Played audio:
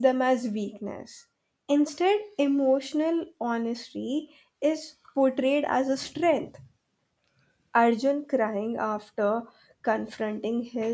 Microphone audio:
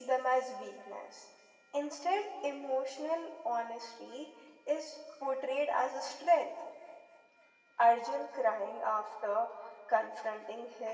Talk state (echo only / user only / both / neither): echo only